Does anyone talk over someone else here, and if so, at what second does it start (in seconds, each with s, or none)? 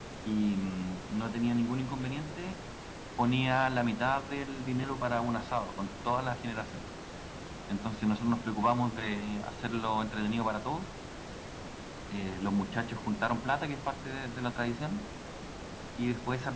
none